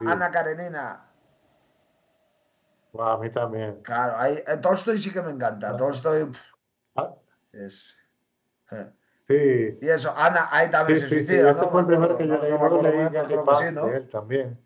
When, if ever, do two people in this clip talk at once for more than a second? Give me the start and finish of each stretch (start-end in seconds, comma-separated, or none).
10.9-14.0